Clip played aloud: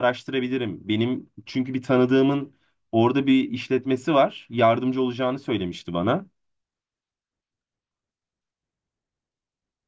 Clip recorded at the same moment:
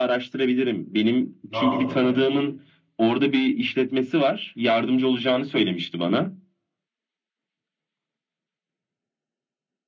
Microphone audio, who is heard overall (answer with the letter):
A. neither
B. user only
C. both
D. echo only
C